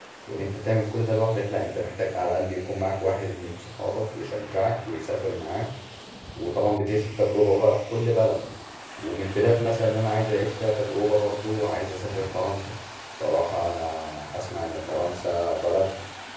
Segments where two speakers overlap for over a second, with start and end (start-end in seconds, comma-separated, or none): none